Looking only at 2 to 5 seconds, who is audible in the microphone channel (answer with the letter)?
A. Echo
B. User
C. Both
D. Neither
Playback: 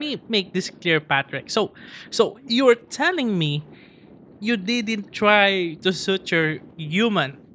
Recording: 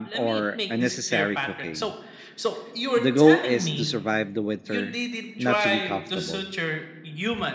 C